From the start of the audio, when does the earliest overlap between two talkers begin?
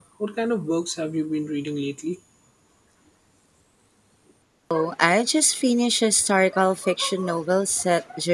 none

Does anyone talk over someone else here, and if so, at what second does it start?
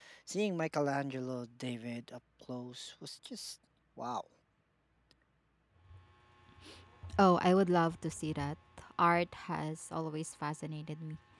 none

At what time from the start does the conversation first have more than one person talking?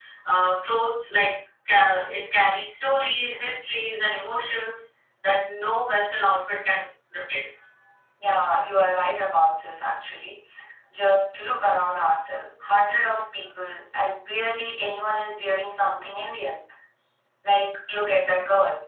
none

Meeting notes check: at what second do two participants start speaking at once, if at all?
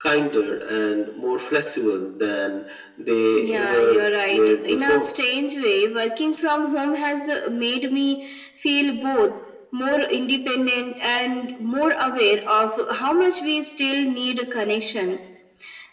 3 s

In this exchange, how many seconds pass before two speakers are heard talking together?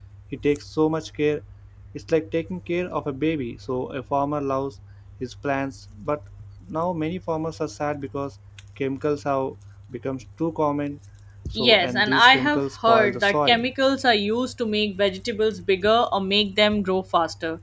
12 s

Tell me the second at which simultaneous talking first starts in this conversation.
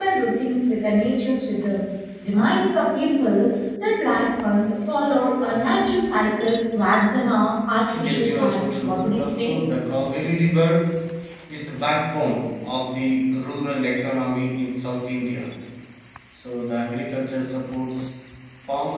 8 s

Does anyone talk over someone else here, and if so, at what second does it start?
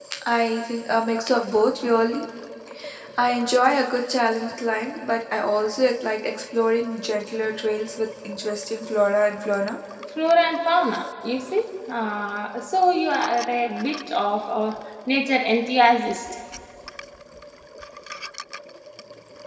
none

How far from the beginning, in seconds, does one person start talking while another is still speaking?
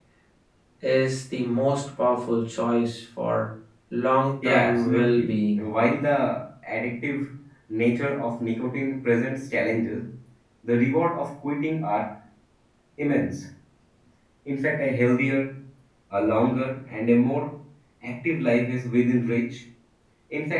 4 s

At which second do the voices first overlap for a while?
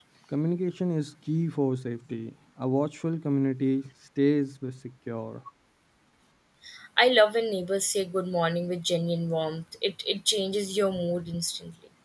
none

